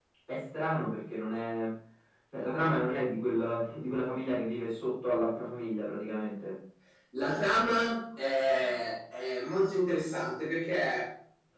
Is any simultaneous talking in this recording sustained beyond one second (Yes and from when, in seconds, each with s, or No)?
No